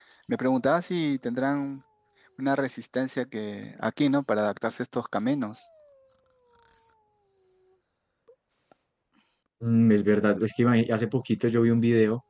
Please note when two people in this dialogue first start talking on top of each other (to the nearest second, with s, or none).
none